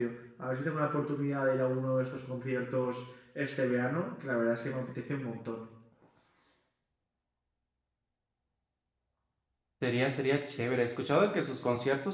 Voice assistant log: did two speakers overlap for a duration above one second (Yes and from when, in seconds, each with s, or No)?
No